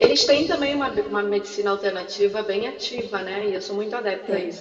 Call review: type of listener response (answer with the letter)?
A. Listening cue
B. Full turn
A